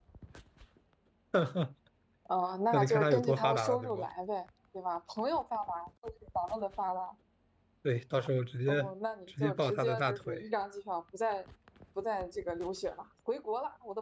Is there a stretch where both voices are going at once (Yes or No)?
Yes